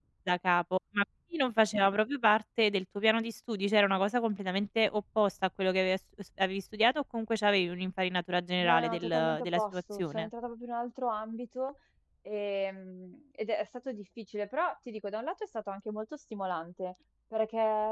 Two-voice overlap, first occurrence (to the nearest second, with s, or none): 9 s